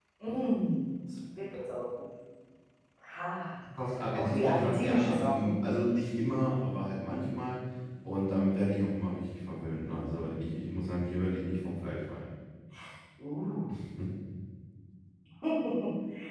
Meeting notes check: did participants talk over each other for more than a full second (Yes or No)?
Yes